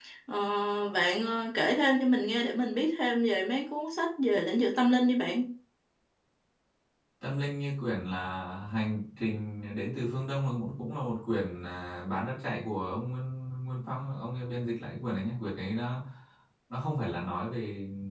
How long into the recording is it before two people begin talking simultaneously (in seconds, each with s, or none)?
none